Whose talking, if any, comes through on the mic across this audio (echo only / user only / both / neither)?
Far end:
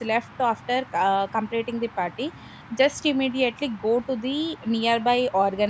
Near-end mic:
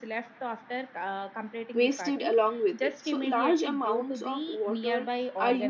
both